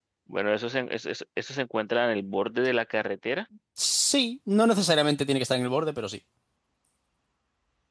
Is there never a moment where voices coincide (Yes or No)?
Yes